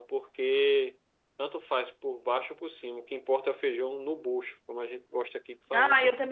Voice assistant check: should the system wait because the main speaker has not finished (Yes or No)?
No